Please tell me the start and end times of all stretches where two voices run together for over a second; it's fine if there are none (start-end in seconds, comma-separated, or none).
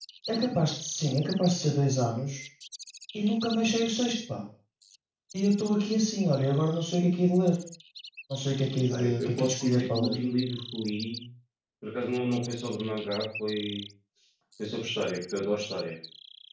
8.9-10.2